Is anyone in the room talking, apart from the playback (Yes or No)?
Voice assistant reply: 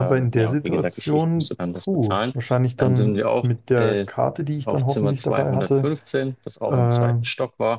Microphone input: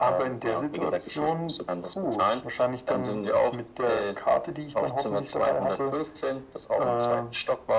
No